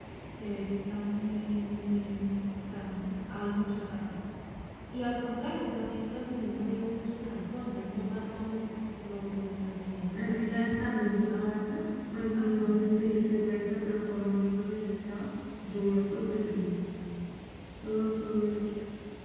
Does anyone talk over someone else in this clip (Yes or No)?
Yes